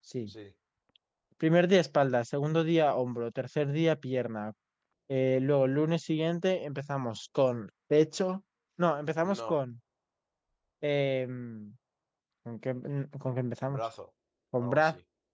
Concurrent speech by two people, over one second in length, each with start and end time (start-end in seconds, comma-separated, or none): none